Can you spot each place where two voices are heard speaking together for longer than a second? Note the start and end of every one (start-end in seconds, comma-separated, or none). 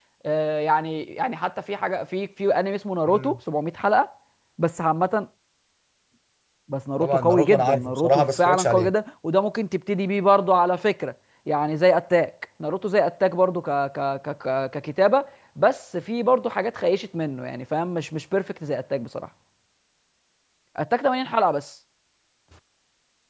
7.0-8.9